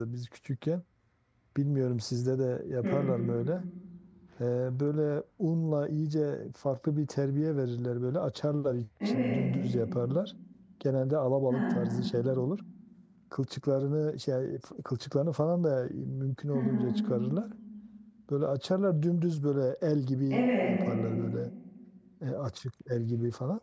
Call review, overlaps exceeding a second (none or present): none